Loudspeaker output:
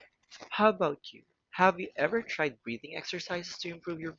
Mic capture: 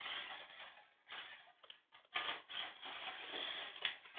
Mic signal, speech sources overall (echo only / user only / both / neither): neither